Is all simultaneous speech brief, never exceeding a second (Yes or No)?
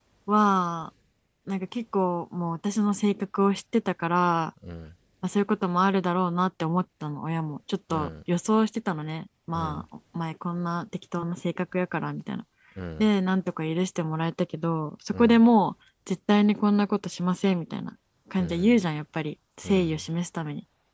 Yes